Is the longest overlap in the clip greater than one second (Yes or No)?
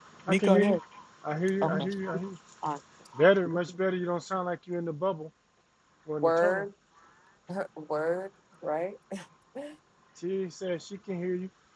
No